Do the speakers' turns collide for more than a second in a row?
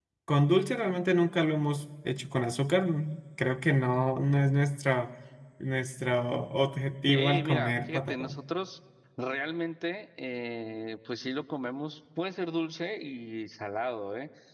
Yes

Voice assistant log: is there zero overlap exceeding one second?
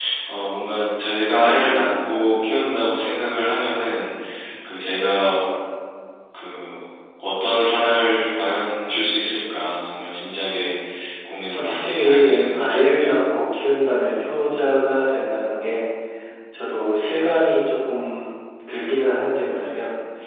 No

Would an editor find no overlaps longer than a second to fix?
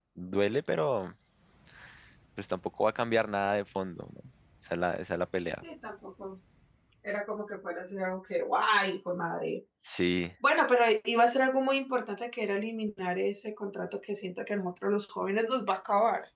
Yes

